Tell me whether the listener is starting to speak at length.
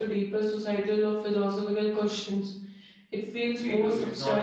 Yes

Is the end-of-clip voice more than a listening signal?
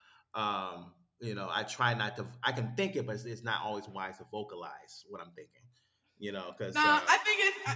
Yes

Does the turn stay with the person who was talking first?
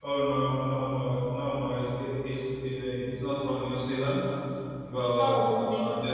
Yes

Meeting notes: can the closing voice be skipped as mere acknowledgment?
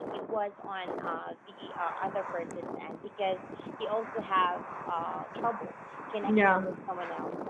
Yes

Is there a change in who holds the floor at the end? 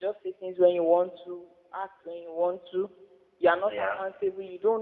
No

